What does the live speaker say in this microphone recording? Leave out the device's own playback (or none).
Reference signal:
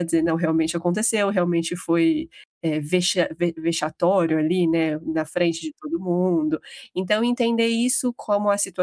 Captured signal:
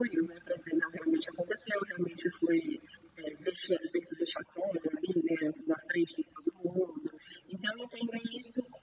none